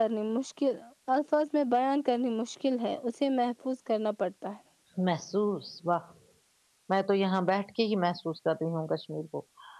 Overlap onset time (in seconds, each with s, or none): none